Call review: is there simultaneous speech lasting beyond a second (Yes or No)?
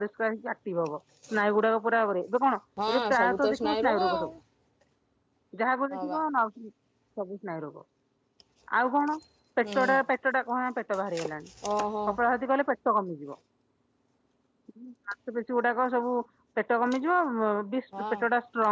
Yes